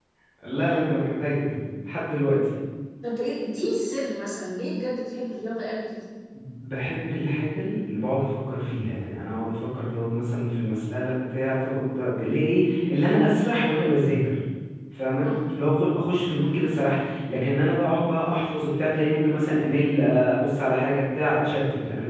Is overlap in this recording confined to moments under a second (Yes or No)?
Yes